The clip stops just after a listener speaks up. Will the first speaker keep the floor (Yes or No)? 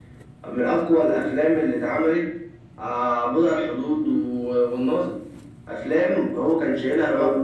Yes